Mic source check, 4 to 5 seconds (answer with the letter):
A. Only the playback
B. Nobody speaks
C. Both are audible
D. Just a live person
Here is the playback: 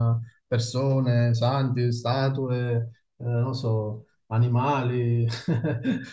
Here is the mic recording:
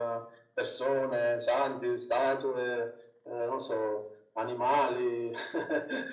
A